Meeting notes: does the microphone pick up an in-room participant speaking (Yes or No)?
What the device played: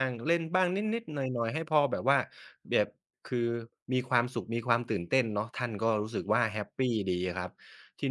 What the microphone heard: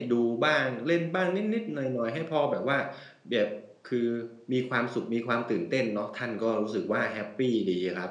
No